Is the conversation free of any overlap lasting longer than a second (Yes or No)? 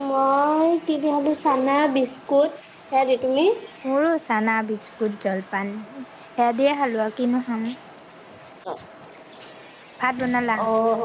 Yes